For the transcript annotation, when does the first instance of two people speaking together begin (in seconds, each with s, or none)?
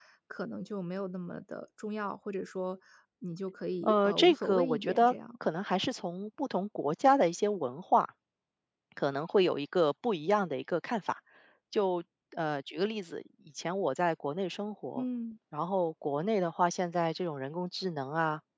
3.8 s